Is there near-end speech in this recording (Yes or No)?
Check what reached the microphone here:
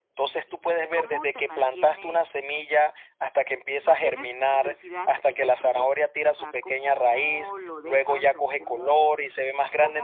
Yes